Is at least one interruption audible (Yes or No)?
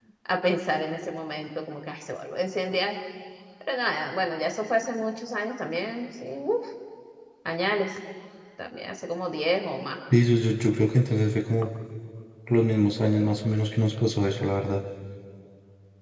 No